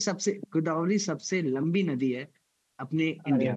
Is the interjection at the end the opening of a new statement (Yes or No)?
Yes